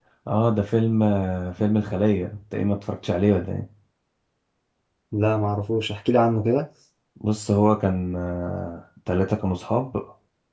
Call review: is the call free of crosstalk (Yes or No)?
Yes